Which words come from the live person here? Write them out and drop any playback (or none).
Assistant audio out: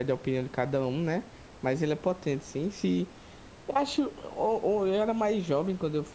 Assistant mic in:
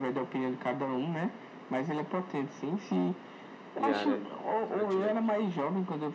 de área ali constantemente.